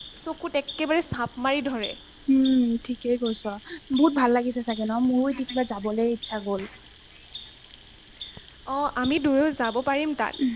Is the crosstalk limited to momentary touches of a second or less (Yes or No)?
Yes